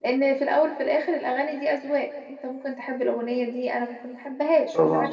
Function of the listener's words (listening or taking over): taking over